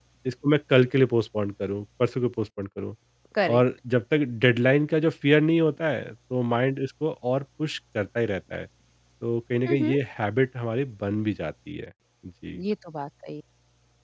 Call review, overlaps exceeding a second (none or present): none